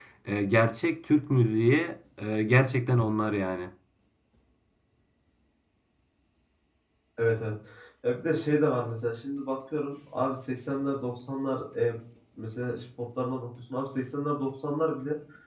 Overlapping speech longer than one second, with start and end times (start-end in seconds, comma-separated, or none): none